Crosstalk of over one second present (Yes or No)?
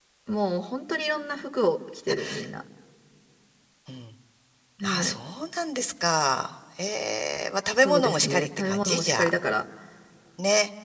Yes